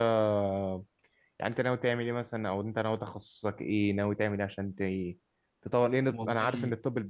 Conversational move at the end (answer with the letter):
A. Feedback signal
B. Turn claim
A